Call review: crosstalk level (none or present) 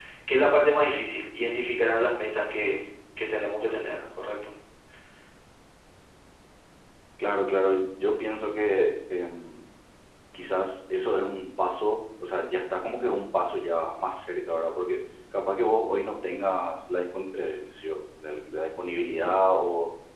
none